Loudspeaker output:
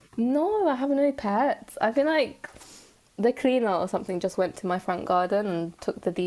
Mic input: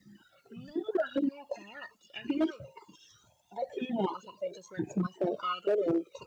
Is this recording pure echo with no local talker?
Yes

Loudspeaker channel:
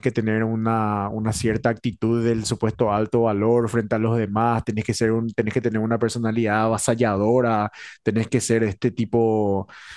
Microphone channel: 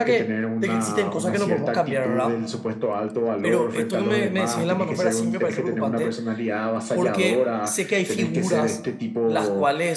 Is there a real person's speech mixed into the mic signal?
Yes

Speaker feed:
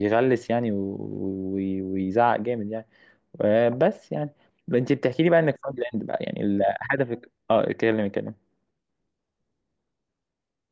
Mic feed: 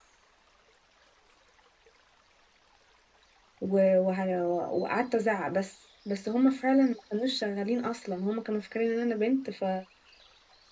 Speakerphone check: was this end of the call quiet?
No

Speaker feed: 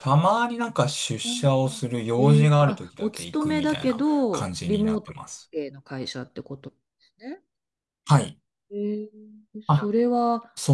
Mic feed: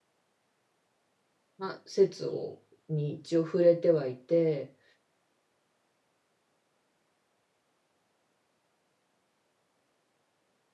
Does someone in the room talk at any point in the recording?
Yes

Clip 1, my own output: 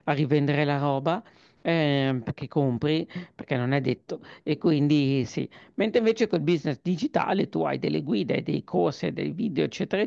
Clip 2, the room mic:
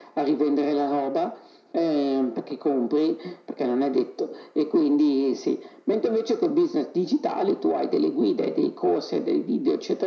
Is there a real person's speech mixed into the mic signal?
No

